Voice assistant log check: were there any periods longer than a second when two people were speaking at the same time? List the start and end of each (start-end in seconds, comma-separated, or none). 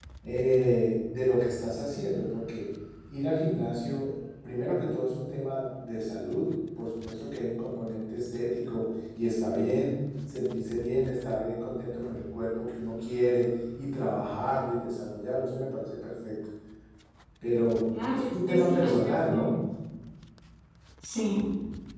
18.1-19.5